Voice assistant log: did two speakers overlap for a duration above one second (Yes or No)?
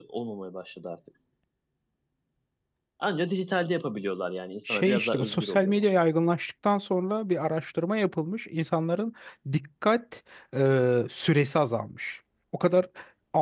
Yes